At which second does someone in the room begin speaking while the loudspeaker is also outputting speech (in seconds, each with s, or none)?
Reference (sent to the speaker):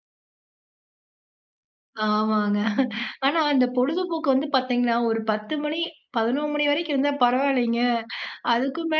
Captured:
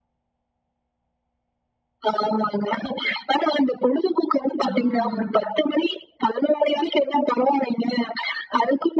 4.6 s